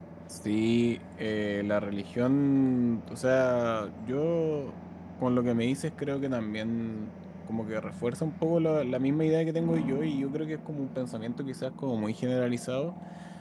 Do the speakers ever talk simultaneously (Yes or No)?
No